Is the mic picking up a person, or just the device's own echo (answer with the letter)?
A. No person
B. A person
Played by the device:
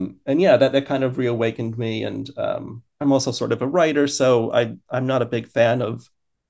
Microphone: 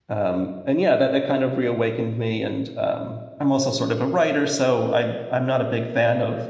A